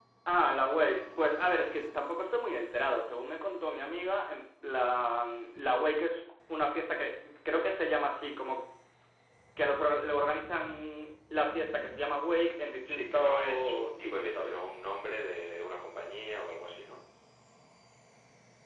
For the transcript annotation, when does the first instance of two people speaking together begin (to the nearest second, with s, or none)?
13 s